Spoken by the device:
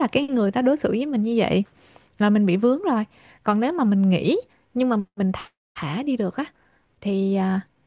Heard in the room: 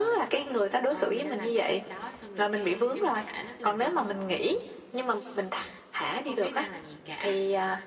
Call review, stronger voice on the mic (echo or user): echo